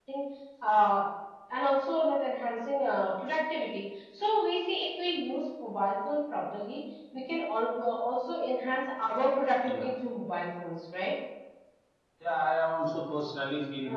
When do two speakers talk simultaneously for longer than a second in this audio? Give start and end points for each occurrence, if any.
none

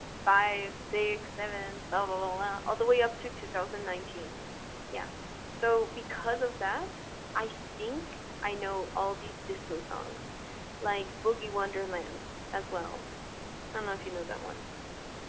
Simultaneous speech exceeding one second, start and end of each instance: none

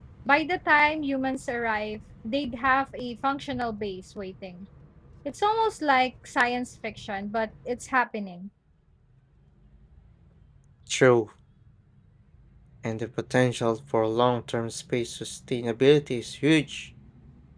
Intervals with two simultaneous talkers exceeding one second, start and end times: none

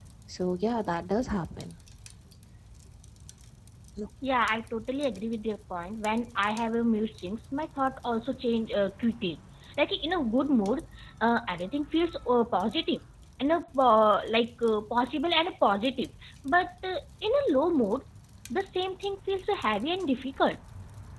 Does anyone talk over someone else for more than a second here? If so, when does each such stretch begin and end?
none

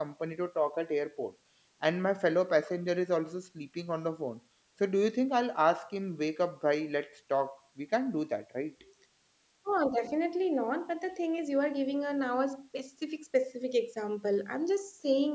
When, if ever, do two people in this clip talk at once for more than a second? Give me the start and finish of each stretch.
none

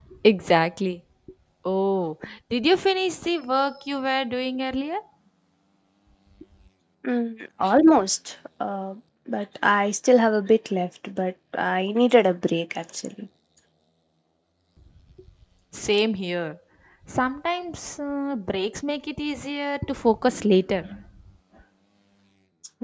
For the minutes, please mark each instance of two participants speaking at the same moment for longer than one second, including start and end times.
none

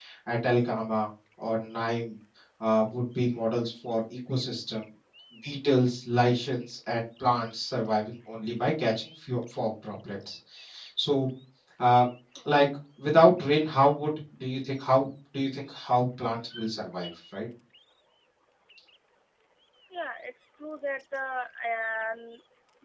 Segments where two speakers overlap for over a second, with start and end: none

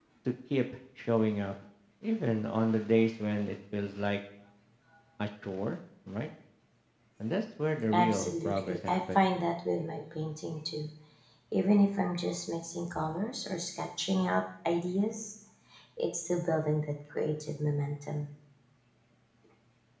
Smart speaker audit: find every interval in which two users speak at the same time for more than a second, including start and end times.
7.9-9.2

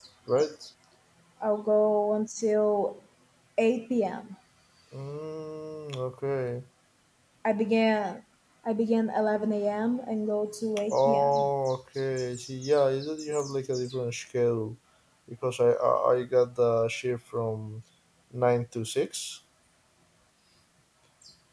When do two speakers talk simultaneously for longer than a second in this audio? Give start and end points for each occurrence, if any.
none

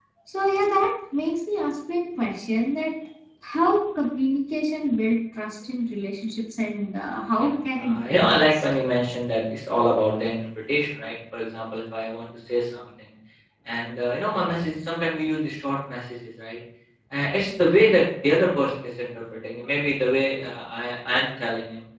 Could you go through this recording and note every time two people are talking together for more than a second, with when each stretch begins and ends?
7.3-8.6

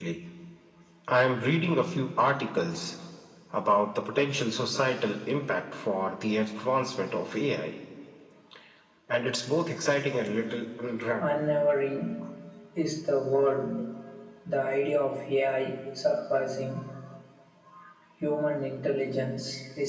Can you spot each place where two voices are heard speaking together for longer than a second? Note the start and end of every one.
none

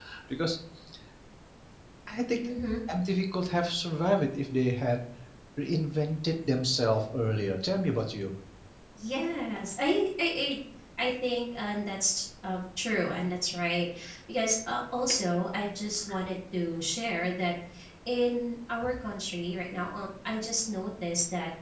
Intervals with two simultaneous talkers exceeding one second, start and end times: none

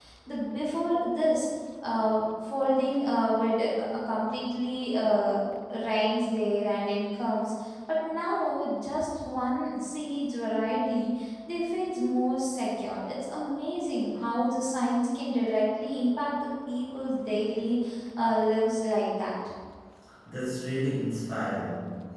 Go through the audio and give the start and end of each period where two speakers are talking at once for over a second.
none

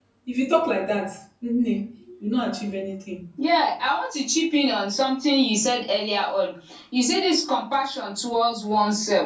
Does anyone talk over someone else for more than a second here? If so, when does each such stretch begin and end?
none

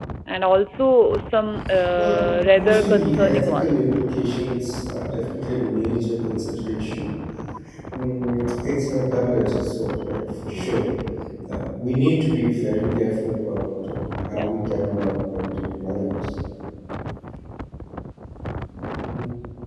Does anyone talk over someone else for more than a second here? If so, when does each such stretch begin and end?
2.0-4.0

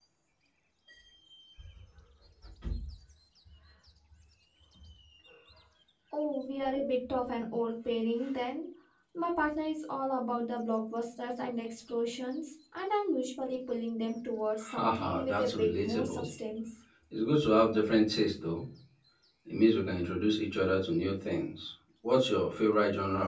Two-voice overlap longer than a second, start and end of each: 14.7-16.3

